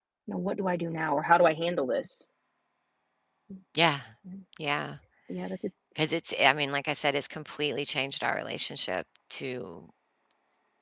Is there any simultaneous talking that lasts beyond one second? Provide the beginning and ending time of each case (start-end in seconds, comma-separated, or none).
none